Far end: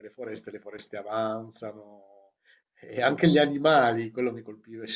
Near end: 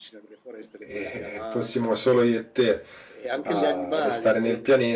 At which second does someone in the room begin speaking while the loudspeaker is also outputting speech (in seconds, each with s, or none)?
0.8 s